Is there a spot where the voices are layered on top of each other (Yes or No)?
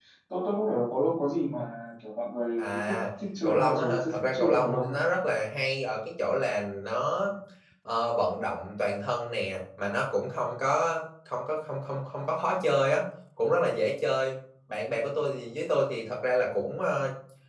Yes